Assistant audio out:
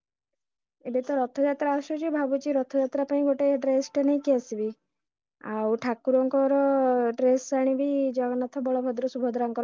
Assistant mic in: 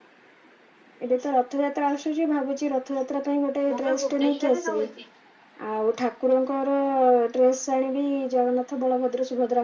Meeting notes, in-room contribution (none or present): present